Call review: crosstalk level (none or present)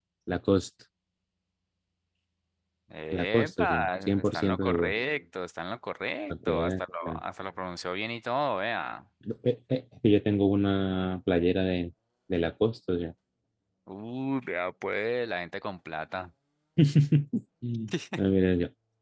present